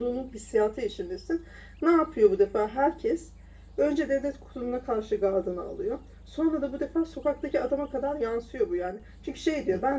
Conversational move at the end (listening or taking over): listening